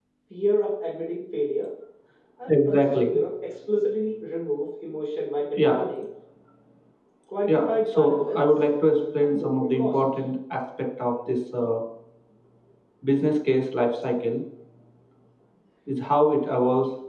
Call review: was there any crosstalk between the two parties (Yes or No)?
Yes